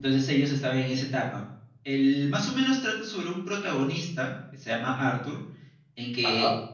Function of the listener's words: listening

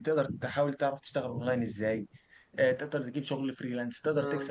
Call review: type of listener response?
listening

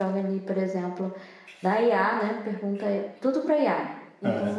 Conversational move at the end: listening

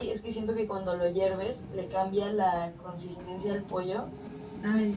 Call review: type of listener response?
listening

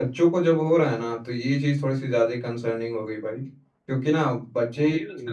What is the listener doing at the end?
listening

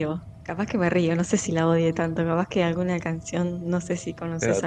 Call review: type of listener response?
listening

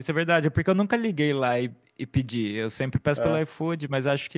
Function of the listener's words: listening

